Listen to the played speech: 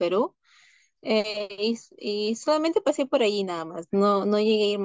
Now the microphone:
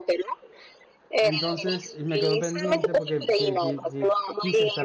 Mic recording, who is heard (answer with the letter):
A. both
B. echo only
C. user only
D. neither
A